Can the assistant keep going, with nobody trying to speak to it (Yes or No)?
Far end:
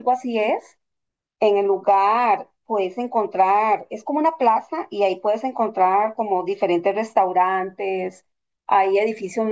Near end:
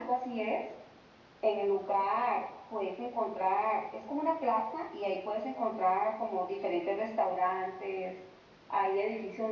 Yes